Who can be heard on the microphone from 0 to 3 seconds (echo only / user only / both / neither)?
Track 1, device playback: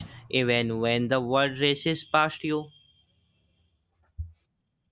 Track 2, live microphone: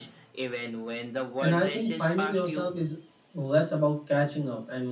both